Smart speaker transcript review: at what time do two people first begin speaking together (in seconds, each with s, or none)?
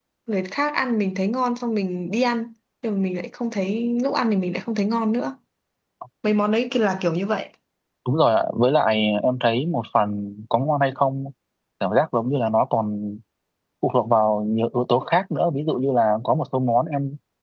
none